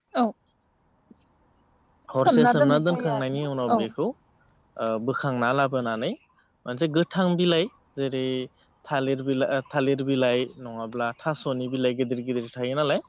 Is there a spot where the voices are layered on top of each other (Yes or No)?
Yes